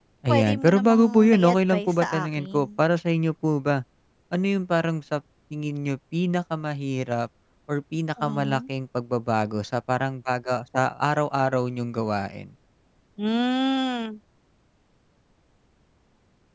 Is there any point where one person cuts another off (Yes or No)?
Yes